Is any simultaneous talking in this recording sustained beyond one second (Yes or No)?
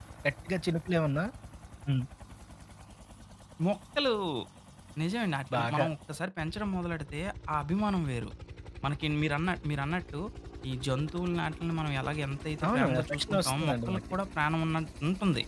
Yes